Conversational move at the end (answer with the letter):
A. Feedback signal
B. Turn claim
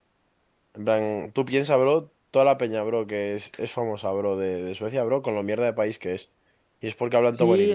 B